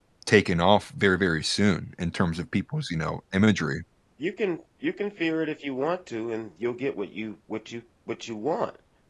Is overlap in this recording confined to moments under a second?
Yes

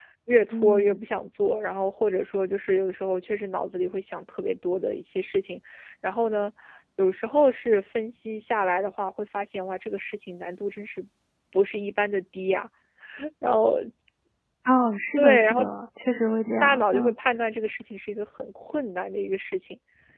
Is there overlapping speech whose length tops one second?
No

